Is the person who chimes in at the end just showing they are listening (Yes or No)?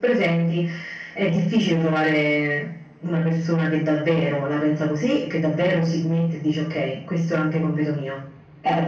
No